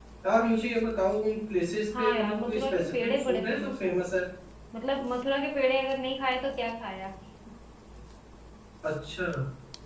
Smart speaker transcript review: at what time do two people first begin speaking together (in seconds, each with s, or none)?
1.9 s